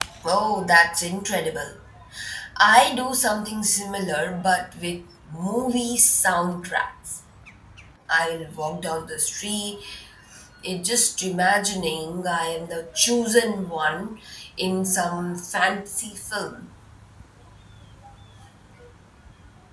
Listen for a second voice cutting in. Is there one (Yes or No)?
No